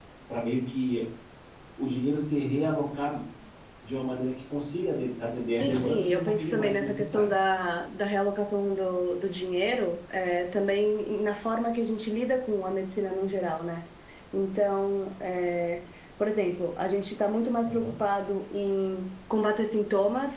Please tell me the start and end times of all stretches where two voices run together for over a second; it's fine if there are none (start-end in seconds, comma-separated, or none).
5.6-7.2